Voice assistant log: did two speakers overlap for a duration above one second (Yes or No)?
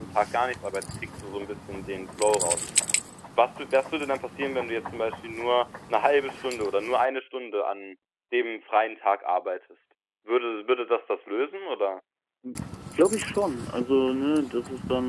No